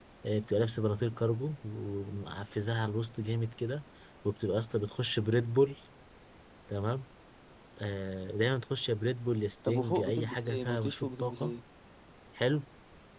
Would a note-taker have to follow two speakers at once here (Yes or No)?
Yes